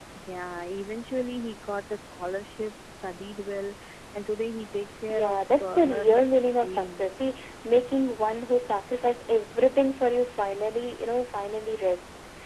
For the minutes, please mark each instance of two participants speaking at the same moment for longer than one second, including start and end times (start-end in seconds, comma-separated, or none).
5.1-7.1